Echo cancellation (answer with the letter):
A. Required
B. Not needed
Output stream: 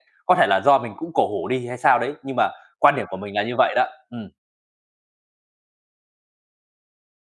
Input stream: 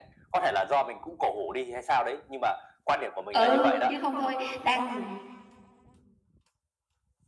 A